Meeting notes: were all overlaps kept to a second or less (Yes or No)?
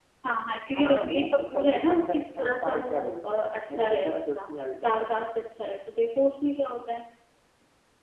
No